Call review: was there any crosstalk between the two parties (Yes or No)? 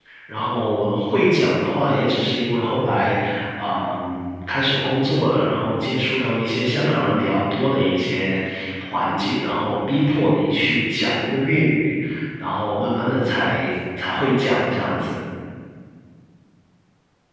No